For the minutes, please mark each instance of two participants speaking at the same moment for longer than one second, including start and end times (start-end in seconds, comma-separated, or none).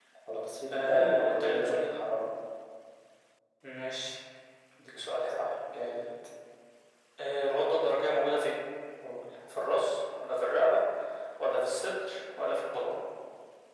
0.7-1.9